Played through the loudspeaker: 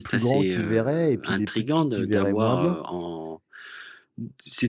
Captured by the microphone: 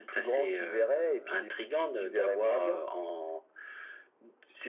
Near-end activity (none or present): none